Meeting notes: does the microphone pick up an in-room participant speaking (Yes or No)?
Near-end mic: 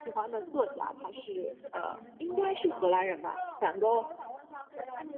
Yes